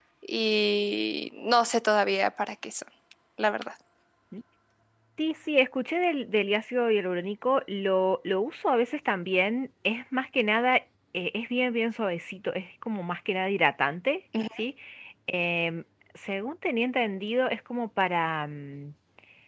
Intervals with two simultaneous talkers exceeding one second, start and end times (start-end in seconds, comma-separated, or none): none